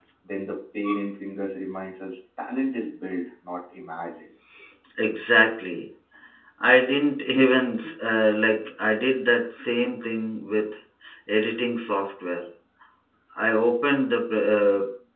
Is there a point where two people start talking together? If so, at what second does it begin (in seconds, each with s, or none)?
none